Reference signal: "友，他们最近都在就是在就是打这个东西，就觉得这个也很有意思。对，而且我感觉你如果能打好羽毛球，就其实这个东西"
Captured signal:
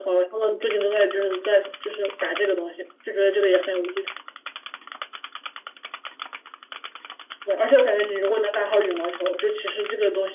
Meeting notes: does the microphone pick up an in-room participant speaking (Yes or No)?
No